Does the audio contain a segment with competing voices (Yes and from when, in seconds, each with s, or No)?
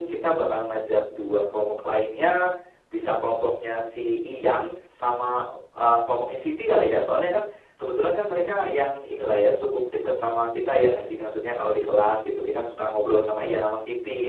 No